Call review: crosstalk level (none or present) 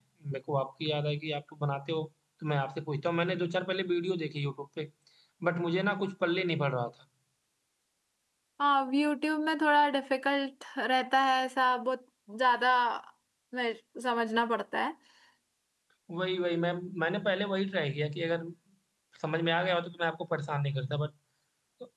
none